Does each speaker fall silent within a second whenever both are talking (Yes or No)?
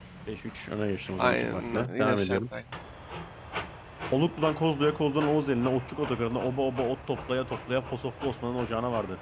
No